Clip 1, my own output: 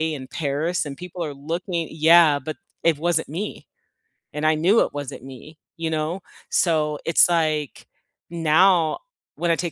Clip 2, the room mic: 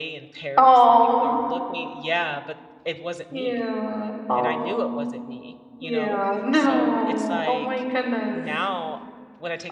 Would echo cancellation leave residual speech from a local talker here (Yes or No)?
Yes